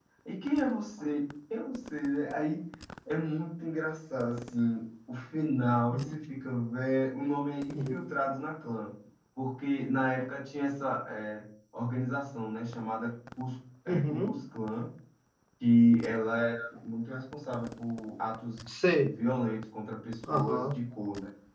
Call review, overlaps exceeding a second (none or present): none